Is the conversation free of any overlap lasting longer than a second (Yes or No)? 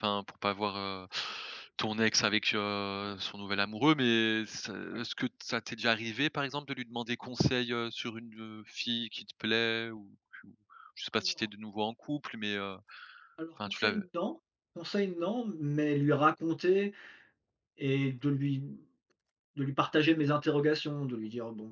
Yes